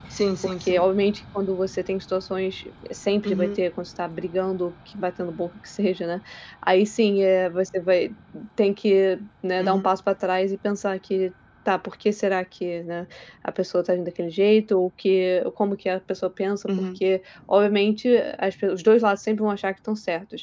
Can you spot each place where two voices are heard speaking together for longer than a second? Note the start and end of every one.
none

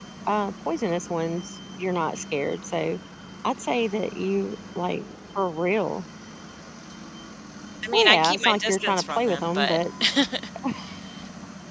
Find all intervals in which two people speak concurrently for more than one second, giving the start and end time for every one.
7.9-9.8

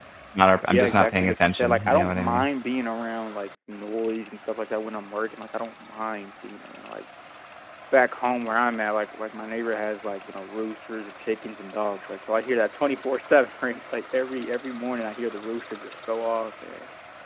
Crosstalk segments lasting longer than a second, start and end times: 0.7-2.5

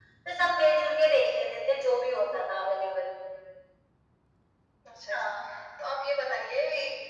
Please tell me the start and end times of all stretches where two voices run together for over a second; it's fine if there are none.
none

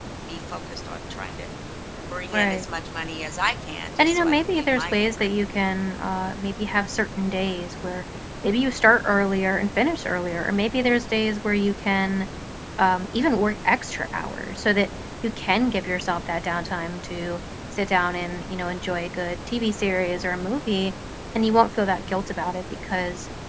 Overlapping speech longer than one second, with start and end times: 4.0-5.3

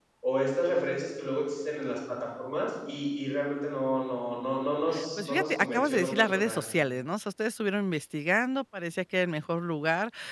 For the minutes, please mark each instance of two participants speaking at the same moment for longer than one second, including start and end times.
5.2-6.6

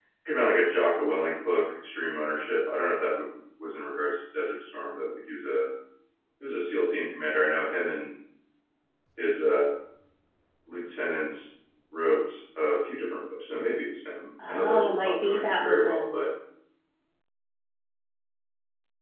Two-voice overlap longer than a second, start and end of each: 14.5-16.2

